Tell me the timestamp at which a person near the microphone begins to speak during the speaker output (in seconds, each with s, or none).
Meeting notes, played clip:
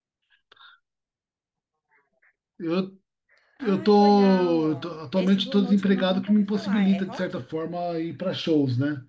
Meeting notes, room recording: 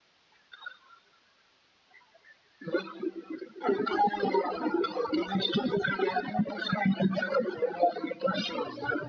none